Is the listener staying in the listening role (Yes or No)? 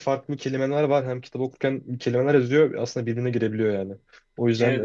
Yes